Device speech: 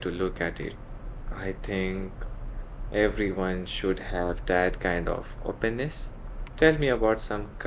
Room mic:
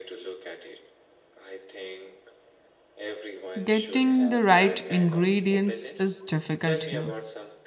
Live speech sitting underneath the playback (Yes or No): No